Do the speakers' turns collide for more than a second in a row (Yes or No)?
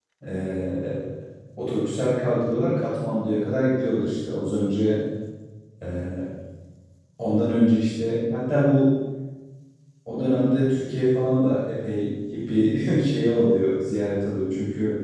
No